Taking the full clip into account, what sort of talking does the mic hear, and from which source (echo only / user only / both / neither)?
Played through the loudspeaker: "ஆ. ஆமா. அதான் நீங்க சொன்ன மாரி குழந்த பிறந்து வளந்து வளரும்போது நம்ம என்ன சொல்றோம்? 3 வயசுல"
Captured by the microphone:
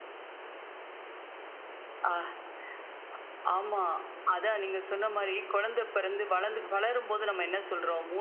echo only